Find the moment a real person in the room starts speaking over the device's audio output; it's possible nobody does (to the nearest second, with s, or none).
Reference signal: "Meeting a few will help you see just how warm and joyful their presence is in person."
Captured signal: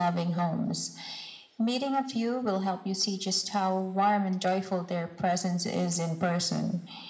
none